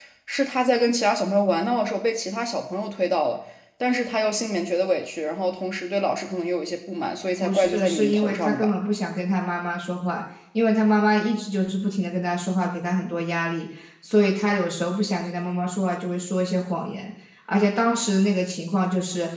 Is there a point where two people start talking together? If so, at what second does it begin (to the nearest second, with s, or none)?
7 s